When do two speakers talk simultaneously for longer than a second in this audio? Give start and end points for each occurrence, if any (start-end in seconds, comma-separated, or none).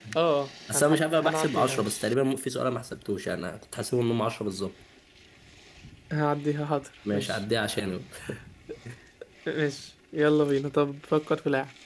0.7-2.0